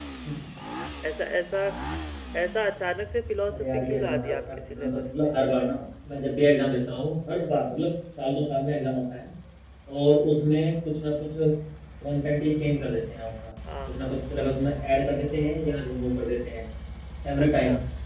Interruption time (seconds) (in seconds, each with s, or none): 3.5 s